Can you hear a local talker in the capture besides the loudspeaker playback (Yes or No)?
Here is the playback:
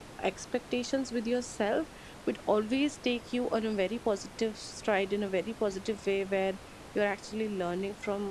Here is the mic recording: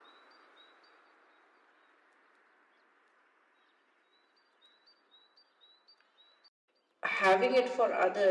Yes